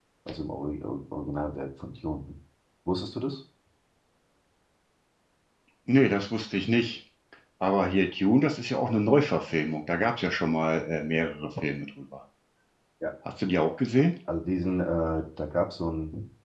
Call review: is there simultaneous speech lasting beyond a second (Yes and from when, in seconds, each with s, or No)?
No